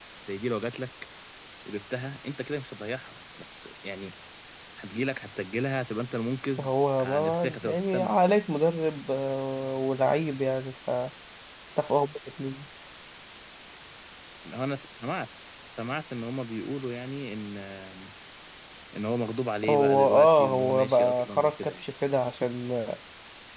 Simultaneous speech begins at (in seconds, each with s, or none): 6.6 s